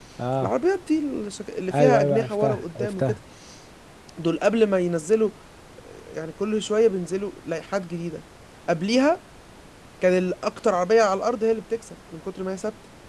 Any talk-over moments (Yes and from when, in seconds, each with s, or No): Yes, from 1.7 s